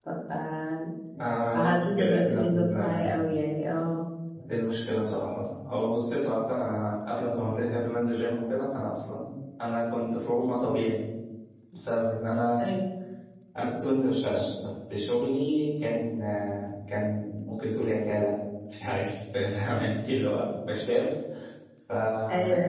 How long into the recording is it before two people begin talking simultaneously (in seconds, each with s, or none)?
1.5 s